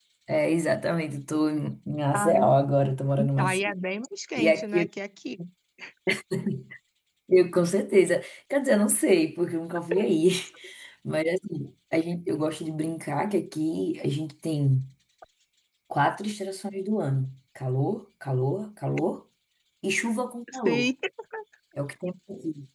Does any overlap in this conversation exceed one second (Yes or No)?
No